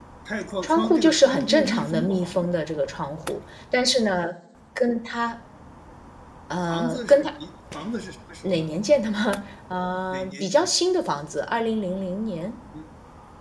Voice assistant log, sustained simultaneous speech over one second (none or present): present